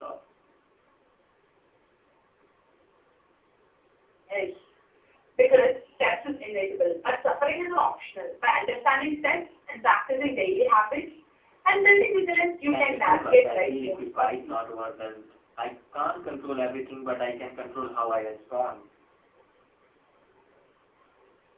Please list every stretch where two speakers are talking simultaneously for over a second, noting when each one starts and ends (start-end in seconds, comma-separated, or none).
12.7-14.5